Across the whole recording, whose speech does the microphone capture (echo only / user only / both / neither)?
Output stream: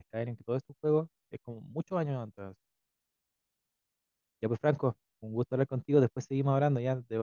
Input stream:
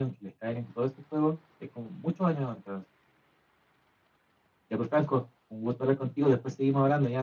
echo only